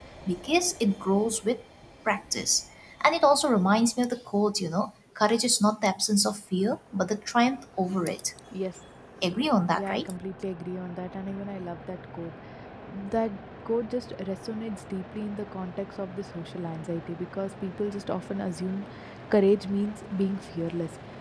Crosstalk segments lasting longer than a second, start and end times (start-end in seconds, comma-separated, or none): none